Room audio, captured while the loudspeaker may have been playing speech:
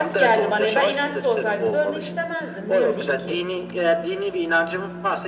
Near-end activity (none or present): present